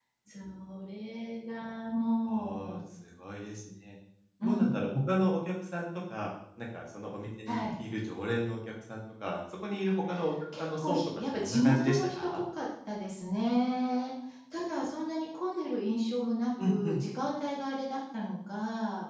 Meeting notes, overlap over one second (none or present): present